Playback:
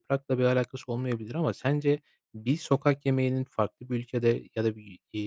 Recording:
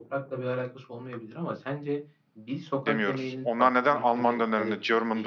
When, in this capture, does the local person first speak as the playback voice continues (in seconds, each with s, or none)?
2.7 s